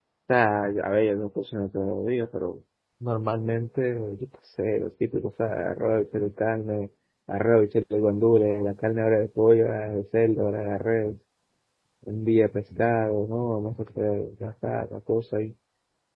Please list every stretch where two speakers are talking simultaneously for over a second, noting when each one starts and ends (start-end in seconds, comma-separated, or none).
none